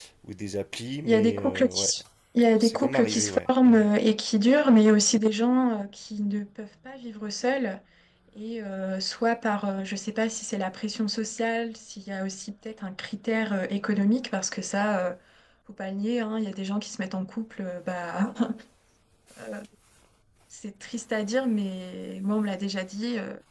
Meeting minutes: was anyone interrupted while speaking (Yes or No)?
Yes